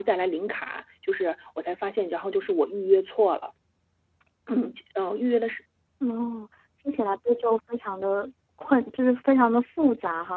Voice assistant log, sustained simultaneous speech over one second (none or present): none